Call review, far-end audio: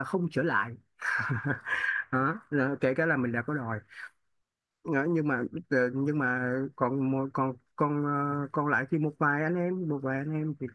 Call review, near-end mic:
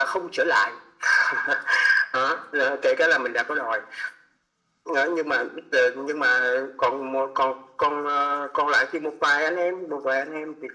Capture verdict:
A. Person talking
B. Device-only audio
B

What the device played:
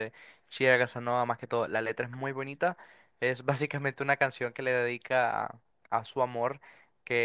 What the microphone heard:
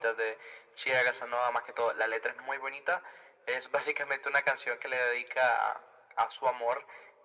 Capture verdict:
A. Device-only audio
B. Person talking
A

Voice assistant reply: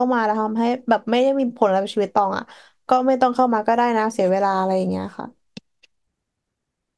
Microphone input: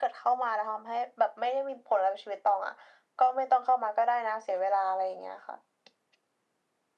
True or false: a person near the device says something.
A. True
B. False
B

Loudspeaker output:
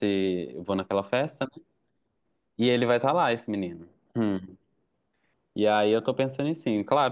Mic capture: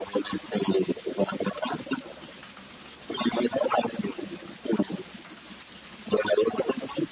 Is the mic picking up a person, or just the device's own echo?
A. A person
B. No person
B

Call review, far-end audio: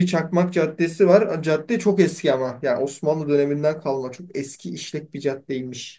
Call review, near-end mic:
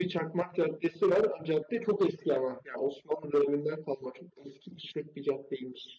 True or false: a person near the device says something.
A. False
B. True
A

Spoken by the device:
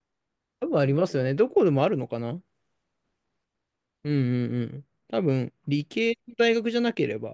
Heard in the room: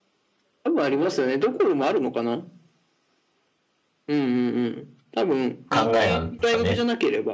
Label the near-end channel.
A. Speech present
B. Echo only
A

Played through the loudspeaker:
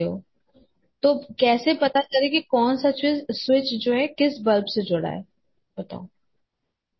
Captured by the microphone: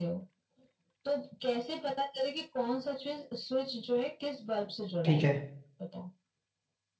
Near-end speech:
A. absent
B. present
B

